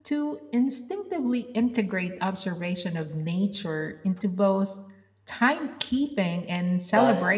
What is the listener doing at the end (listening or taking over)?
taking over